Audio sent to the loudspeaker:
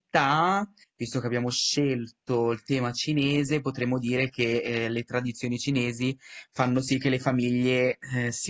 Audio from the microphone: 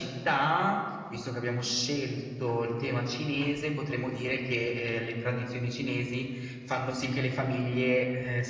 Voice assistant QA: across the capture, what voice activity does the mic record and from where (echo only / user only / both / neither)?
echo only